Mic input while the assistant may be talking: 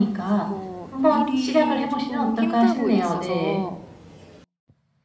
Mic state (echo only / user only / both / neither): both